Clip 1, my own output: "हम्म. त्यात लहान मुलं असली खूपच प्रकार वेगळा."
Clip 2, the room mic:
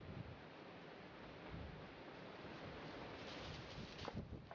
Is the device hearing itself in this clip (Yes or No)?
No